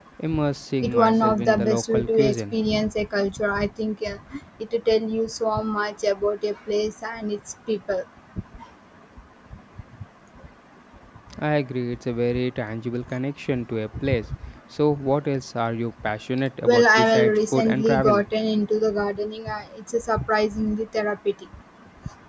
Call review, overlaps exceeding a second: present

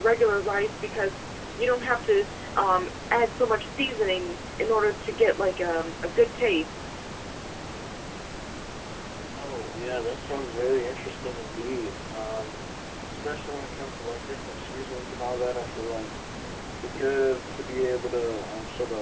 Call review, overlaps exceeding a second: none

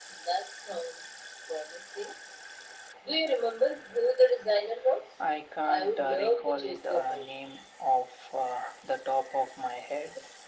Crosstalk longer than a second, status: present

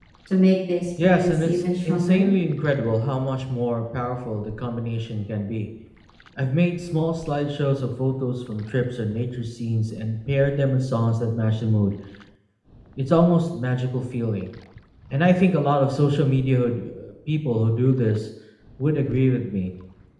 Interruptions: present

